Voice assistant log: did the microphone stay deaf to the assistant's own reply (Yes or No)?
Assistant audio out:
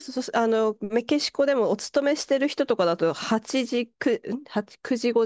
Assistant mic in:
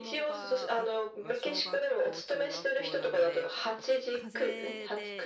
No